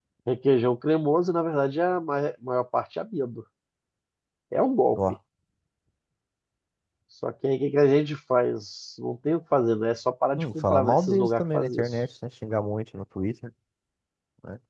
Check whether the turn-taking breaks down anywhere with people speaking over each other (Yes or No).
Yes